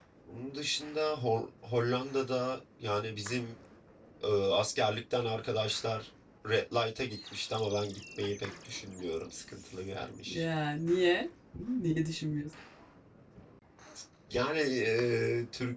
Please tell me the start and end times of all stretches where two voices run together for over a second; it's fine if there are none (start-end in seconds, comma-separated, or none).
none